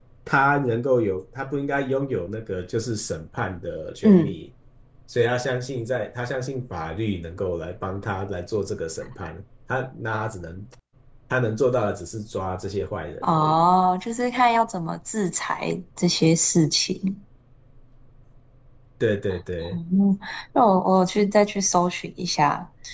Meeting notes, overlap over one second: none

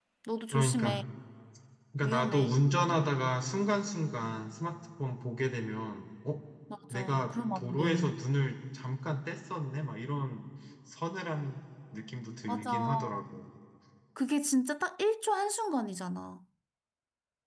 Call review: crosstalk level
present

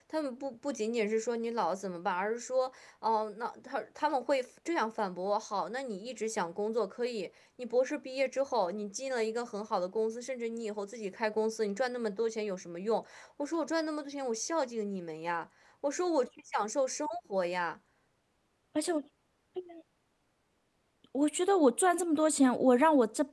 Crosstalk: none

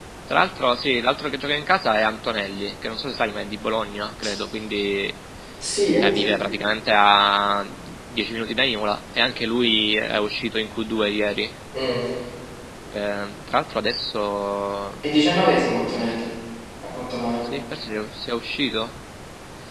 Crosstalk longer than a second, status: none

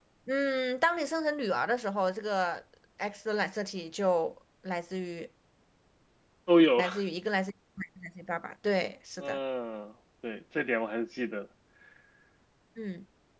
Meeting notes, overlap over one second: none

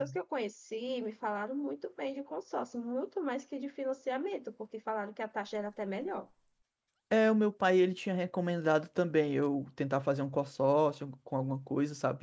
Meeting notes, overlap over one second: none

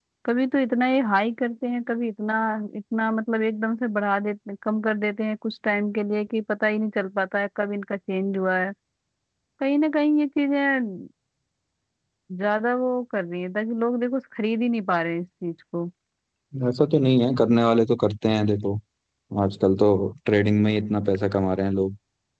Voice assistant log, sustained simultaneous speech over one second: none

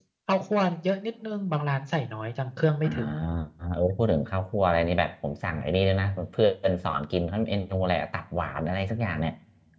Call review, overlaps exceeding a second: none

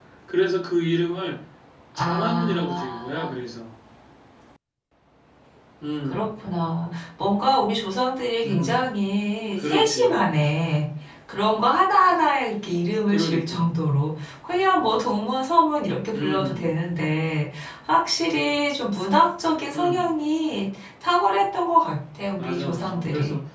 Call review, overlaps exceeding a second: present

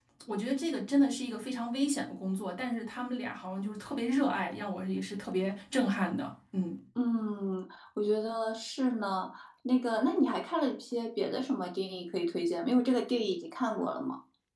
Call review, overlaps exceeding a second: none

